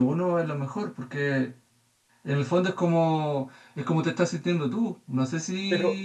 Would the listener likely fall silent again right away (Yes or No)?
No